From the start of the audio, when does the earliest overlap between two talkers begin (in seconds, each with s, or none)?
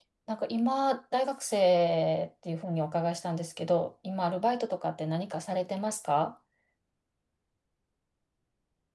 none